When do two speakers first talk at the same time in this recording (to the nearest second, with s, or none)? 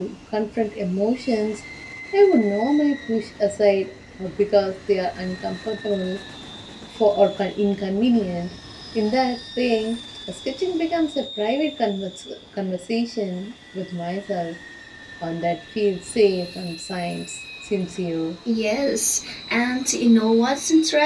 none